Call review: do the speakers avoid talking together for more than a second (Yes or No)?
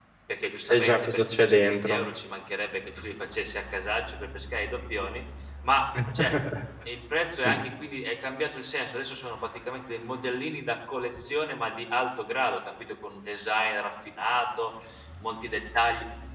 No